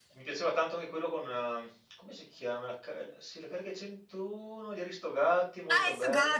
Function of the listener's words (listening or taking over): taking over